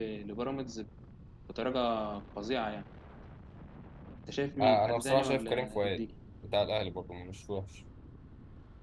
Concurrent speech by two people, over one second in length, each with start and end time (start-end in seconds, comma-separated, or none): 4.6-6.0